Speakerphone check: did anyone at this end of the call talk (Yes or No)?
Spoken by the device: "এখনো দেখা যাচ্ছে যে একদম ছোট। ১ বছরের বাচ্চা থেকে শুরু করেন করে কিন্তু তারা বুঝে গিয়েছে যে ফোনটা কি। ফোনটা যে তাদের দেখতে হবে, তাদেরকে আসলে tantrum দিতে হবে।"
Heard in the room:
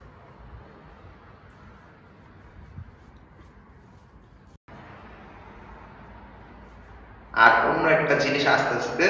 Yes